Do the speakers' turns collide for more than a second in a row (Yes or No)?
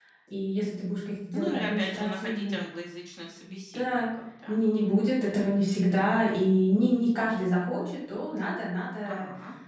Yes